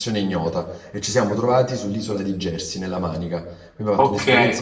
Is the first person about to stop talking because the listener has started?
Yes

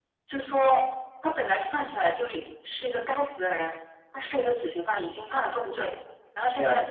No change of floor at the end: Yes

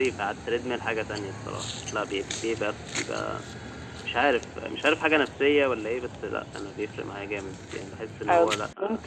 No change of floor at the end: No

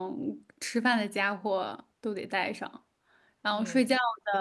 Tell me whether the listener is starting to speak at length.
No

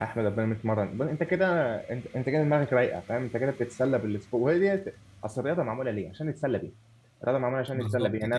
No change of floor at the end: Yes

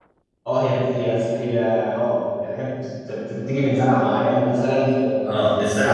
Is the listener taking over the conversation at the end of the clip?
Yes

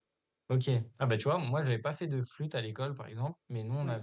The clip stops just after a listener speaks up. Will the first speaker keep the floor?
Yes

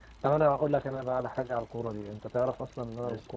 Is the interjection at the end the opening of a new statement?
No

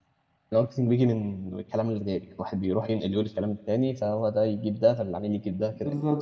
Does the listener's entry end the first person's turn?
Yes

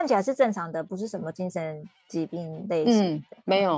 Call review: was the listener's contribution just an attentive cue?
No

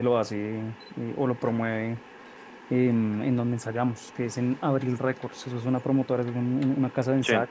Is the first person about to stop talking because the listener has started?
No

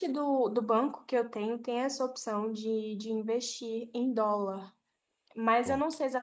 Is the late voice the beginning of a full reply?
No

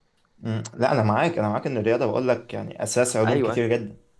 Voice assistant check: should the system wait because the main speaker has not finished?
Yes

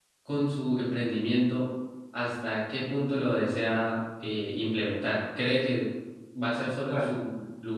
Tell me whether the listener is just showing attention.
Yes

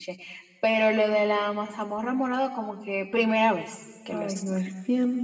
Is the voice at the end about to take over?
Yes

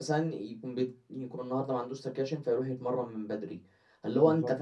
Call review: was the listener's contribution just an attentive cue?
Yes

